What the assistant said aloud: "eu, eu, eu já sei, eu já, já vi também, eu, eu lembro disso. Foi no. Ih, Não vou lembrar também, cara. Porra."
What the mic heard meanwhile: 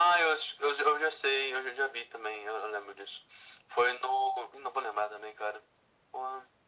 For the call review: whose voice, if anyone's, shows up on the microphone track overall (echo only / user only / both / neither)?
echo only